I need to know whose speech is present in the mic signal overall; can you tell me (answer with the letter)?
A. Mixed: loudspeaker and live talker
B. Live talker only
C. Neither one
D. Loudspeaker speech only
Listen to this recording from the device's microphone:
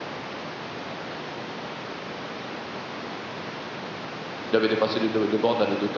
B